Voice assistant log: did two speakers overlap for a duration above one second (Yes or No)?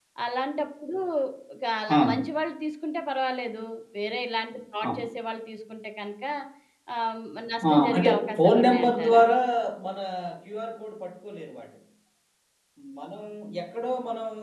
Yes